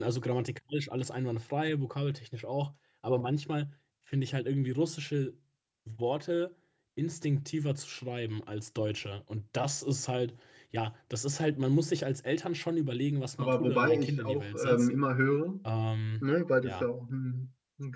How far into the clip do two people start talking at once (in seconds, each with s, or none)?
13.4 s